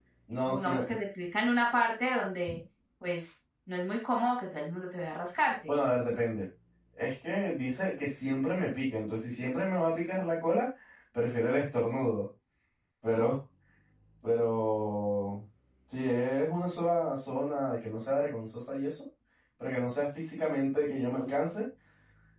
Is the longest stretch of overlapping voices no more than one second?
Yes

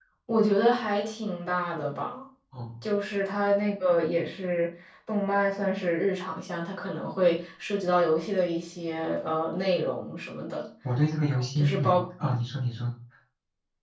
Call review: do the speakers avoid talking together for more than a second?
Yes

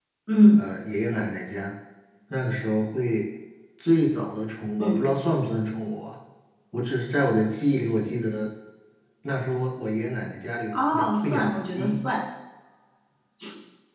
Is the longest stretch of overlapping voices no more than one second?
No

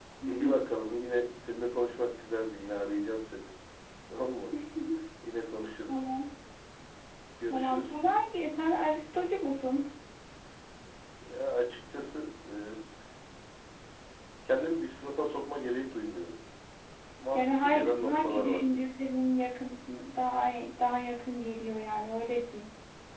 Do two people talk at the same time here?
Yes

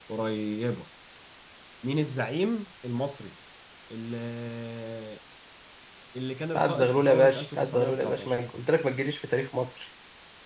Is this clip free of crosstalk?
No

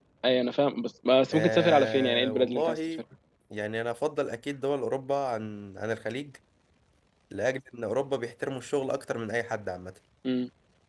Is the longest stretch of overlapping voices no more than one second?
No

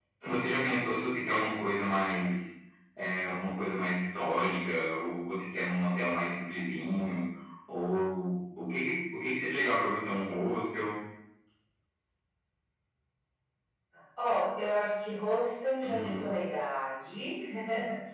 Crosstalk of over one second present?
No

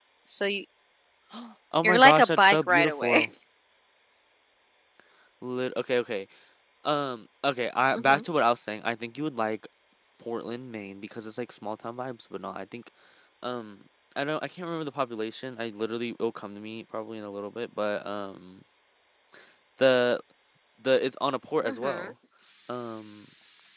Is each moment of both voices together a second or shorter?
No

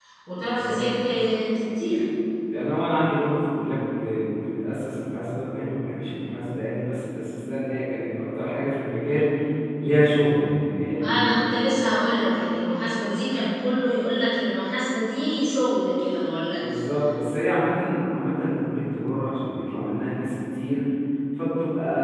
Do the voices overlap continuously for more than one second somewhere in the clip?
No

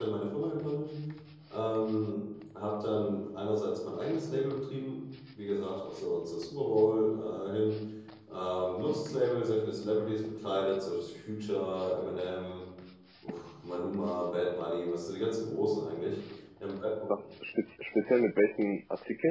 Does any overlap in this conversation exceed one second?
No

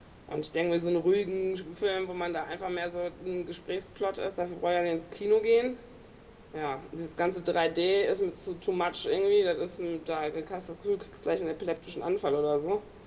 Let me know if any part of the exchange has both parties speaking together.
No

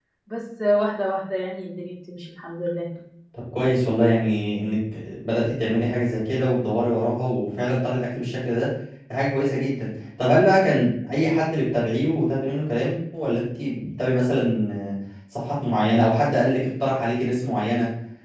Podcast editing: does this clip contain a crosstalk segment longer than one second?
No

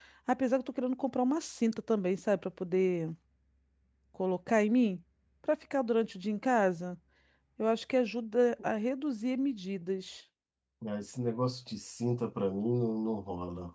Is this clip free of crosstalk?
Yes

